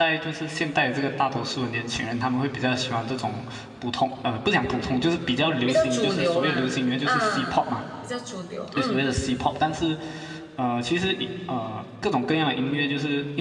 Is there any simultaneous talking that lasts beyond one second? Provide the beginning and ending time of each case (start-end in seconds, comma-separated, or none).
5.7-7.7